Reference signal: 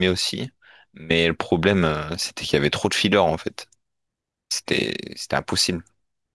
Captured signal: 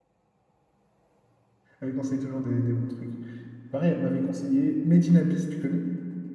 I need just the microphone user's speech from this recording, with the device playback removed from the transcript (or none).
Elle me conseille toujours des, des bons trucs. Pareil, elle m'avait conseillé Made in Abyss, tu connais?